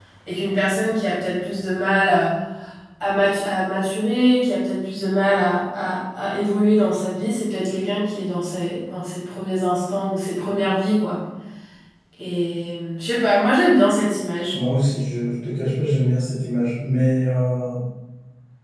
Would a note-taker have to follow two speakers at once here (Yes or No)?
No